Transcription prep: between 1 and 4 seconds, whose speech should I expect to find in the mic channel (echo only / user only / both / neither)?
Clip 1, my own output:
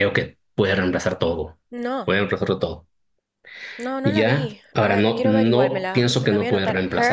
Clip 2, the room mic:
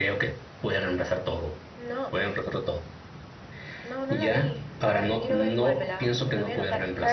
echo only